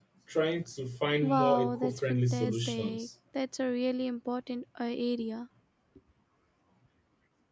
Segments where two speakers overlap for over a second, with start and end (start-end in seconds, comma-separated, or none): 1.2-3.1